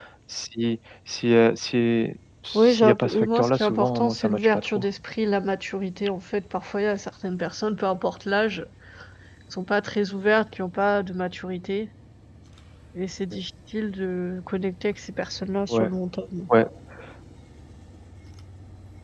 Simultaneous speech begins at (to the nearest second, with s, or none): 3 s